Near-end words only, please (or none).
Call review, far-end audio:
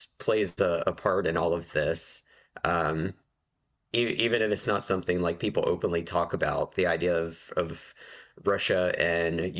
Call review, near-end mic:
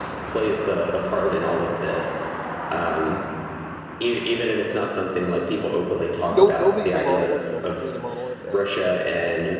no nobody's a monolith, no country's a monolith, and